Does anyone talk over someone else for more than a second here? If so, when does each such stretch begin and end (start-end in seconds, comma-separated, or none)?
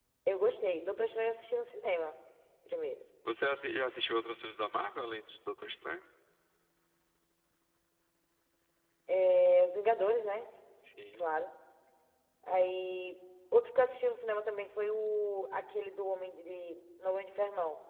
none